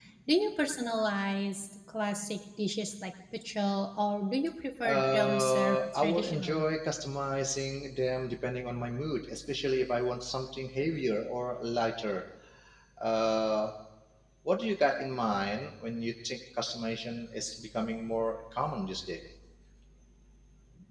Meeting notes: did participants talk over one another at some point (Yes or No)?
Yes